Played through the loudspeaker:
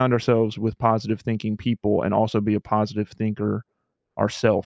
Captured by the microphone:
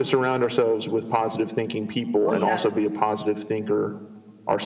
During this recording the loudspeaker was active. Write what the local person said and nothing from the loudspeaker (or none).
Oh, yeah.